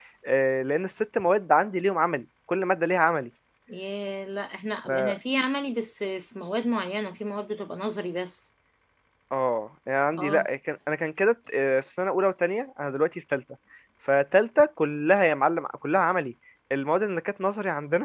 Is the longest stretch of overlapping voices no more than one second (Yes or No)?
Yes